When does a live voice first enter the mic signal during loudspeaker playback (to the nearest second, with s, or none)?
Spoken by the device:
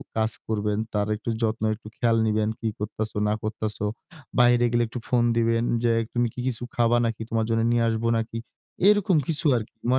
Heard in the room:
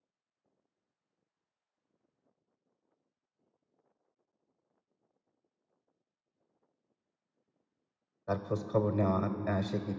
8 s